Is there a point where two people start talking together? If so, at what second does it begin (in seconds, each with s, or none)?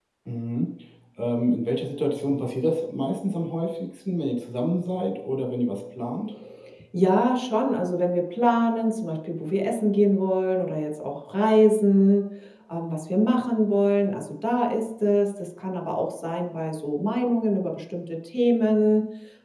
none